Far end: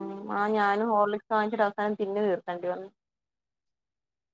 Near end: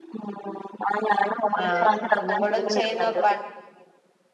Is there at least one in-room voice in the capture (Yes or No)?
Yes